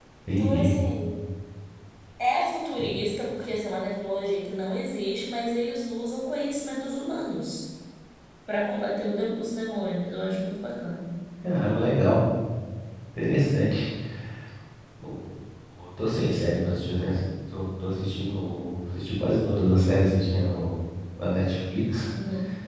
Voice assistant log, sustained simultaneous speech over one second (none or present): none